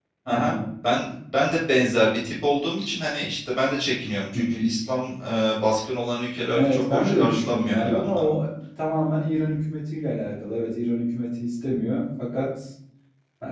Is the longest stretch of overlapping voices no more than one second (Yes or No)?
No